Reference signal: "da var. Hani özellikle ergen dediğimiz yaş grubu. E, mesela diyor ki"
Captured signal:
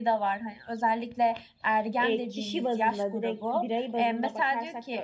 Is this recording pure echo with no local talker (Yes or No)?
No